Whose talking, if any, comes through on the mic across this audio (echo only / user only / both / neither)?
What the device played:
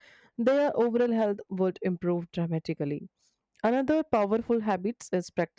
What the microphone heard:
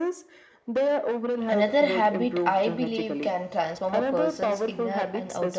both